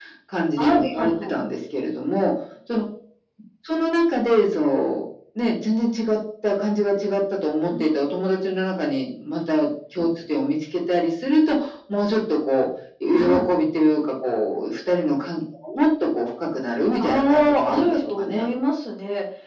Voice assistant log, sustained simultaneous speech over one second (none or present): present